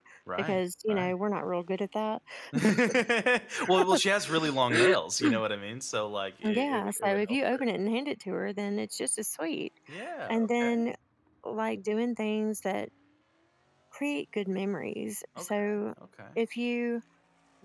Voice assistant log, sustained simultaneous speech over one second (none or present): present